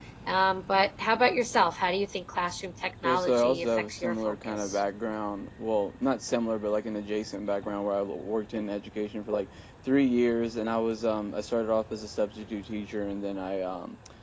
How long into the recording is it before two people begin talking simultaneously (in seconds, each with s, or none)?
3.0 s